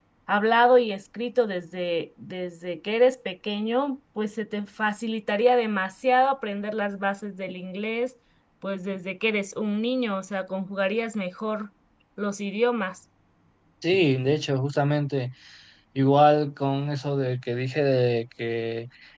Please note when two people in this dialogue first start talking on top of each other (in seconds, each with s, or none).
none